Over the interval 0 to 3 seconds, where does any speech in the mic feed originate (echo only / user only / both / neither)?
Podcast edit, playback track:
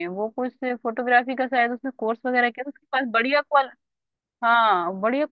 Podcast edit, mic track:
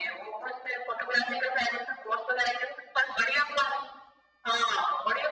echo only